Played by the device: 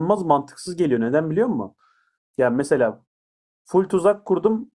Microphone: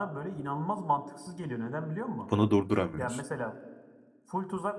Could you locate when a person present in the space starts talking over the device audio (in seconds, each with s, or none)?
2.3 s